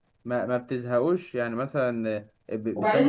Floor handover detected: Yes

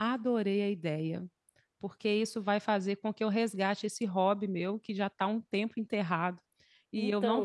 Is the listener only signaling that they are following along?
Yes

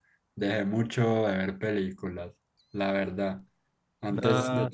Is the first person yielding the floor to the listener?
No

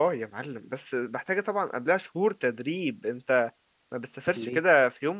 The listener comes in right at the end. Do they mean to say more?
No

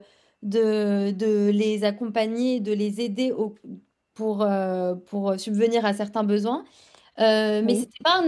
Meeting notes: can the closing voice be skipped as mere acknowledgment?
Yes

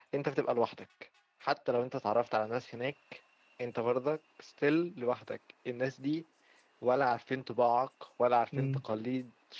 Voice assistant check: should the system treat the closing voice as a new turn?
No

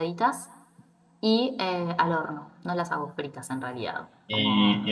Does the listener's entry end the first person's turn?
Yes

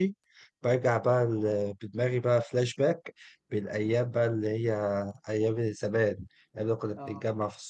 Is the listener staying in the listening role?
Yes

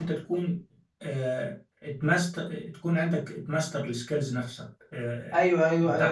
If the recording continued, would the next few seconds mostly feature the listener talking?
Yes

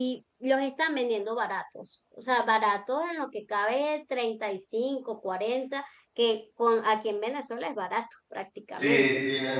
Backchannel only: No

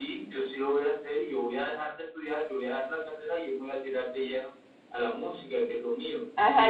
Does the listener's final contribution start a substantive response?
Yes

